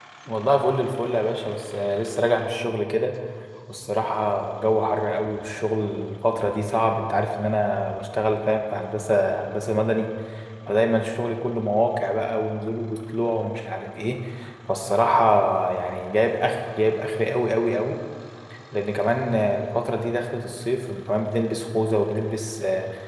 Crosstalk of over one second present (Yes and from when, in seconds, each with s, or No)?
No